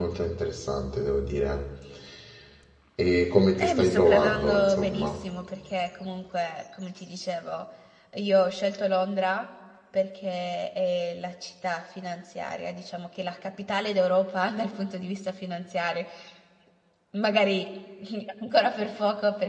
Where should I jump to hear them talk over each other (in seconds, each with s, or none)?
3.6 s